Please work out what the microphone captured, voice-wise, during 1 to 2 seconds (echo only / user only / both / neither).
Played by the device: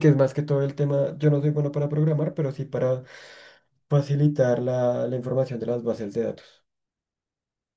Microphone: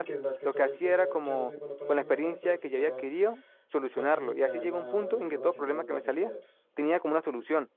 both